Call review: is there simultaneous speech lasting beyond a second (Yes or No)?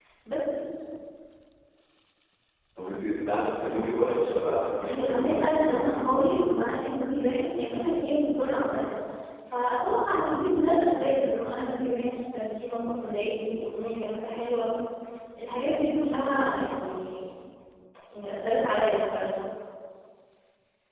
Yes